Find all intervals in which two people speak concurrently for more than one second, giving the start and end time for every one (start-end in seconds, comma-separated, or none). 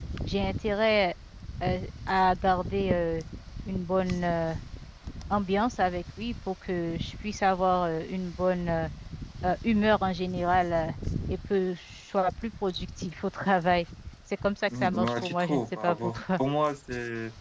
14.8-16.2